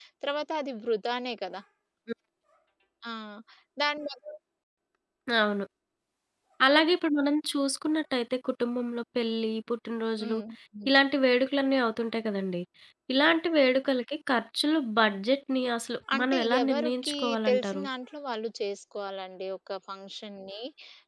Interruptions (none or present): present